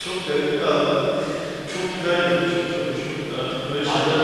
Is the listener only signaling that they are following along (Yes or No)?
No